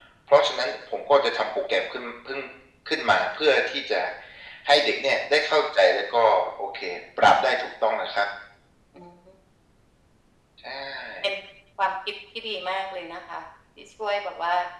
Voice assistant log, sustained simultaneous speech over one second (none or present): none